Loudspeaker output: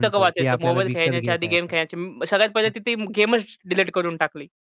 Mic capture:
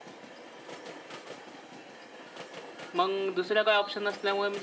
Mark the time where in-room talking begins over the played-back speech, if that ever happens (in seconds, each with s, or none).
3.0 s